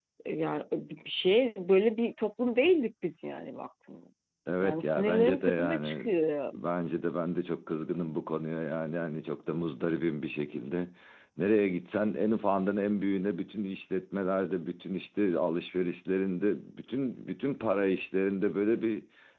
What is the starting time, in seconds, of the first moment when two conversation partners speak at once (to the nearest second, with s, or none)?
5 s